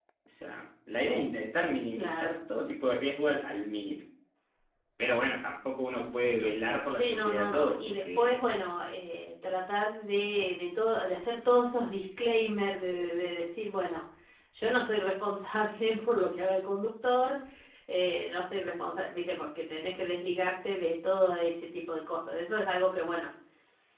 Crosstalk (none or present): present